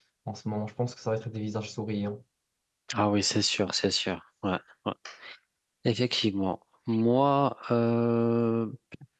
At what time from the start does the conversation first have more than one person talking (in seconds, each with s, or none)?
none